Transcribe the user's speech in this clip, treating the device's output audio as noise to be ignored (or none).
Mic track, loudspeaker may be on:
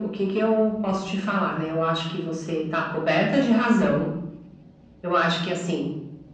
none